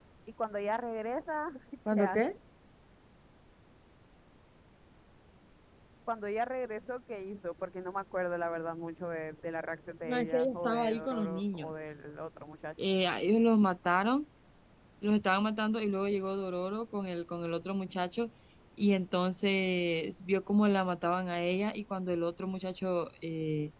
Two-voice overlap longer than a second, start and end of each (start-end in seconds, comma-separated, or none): 10.0-11.7